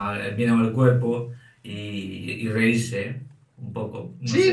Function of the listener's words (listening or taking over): taking over